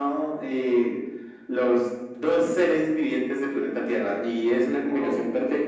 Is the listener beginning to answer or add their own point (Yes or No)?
No